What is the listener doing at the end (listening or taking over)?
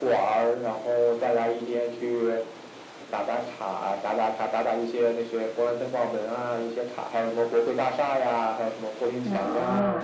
taking over